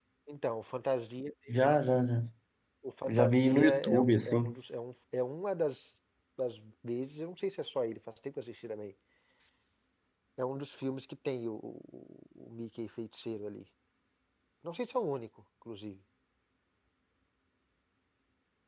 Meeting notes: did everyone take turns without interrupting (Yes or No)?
No